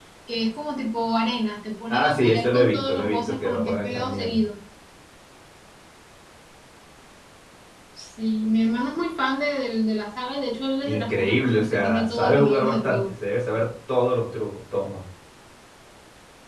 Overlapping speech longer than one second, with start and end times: 1.9-4.4, 10.8-13.1

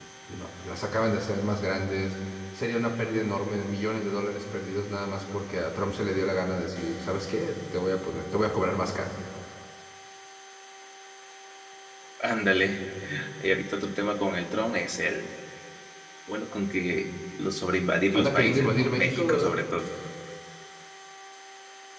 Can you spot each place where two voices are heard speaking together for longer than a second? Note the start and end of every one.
18.1-19.6

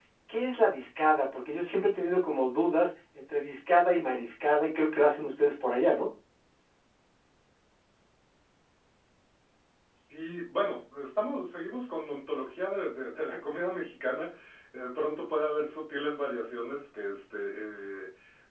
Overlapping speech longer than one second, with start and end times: none

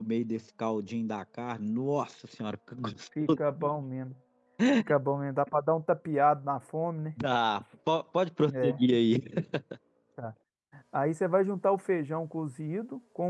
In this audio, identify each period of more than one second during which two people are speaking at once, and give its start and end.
none

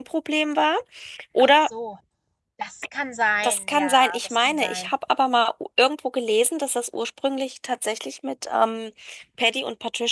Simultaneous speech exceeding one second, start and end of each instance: 3.4-4.9

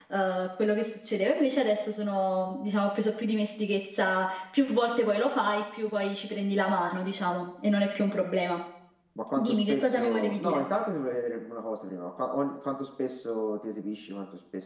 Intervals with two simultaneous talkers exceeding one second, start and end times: 9.4-10.6

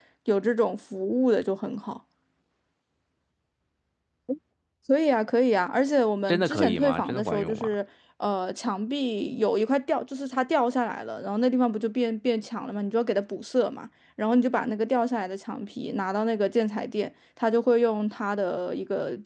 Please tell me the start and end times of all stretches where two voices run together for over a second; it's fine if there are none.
6.3-7.7

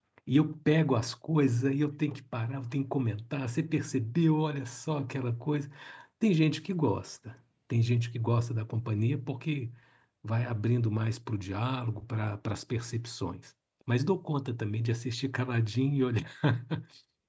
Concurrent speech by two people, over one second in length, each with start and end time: none

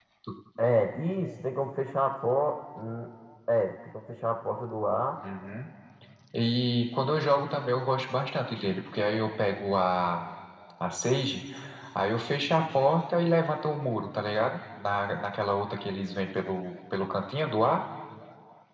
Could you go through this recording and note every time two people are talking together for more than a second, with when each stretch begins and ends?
none

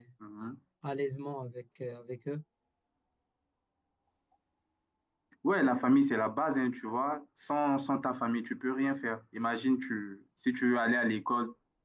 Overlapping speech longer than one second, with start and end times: none

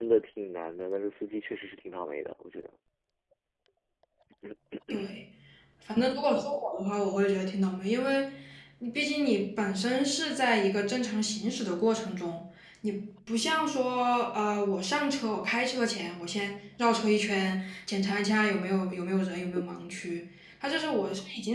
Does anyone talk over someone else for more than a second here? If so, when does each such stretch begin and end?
none

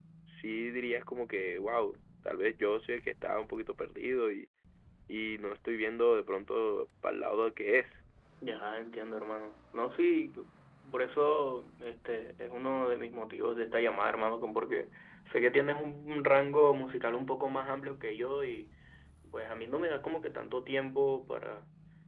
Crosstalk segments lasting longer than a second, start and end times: none

